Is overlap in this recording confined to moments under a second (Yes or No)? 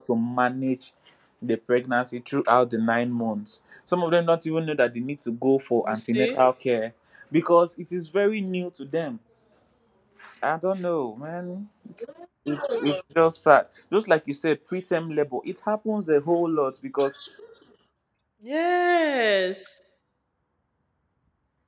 Yes